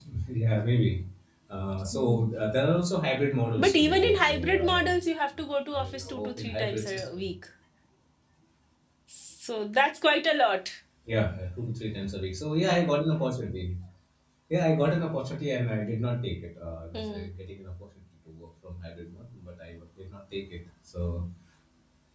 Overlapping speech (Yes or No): Yes